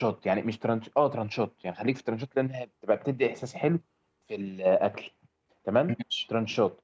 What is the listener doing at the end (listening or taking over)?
listening